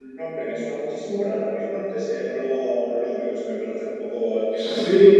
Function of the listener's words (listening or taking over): taking over